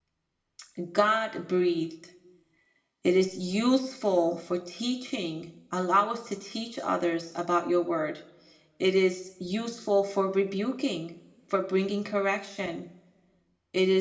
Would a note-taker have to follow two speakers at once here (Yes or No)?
No